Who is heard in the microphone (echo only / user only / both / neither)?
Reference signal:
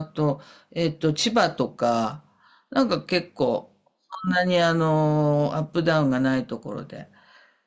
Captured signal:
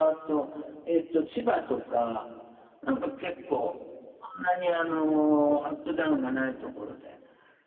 echo only